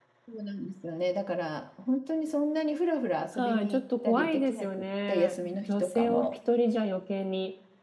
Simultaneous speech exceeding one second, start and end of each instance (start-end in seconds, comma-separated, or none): 3.4-6.3